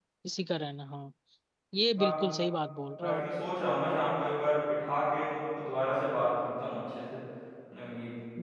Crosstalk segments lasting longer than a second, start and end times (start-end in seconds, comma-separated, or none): none